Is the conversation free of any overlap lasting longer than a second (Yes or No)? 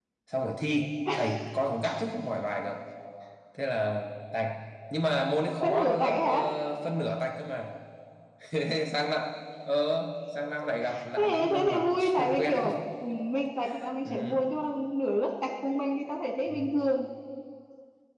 No